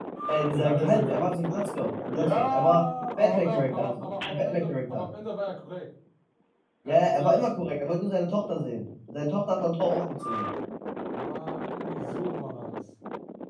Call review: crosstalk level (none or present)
present